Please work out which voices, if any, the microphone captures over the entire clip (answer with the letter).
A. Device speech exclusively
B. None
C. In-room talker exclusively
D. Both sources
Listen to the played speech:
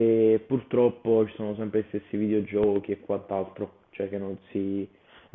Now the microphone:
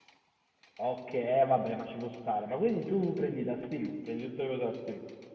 C